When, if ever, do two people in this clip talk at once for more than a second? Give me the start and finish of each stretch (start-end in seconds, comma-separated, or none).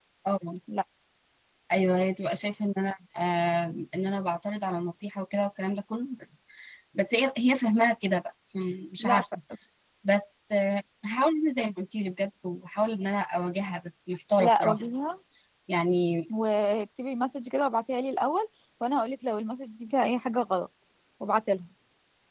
none